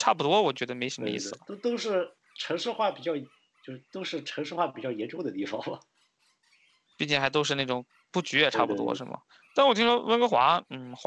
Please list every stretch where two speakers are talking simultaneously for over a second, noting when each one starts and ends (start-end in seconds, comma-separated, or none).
none